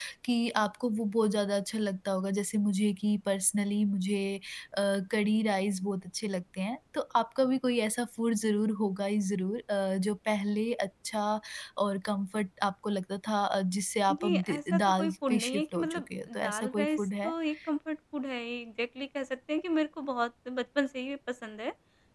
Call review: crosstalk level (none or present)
present